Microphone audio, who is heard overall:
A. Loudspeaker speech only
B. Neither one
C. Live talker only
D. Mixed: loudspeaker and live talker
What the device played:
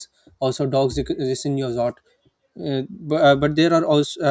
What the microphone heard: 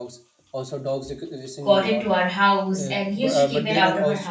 D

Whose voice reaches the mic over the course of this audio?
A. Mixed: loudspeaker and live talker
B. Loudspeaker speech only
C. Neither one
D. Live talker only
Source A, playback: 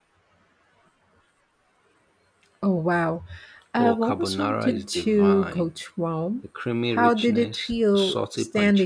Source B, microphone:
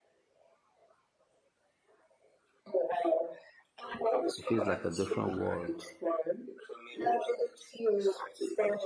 A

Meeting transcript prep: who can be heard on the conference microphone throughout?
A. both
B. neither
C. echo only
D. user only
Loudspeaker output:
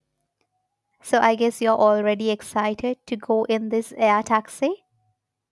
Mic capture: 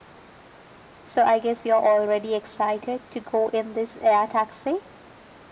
C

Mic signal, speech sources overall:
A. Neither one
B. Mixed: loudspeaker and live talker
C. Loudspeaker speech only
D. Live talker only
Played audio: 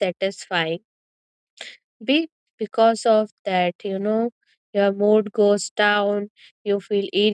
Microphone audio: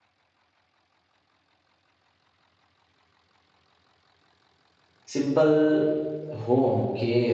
D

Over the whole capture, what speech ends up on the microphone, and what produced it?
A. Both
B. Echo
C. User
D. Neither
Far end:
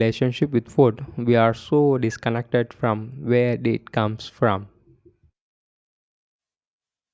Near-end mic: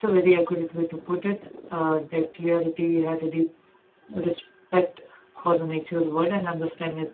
C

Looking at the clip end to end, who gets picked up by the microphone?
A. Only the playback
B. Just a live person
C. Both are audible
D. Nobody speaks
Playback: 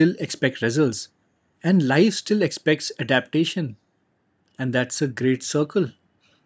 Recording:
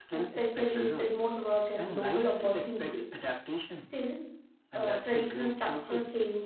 C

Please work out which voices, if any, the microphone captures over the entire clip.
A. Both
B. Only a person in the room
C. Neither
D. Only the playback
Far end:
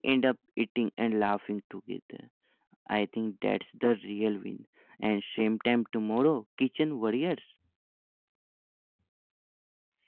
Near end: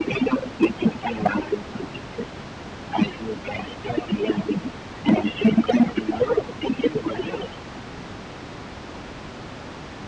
D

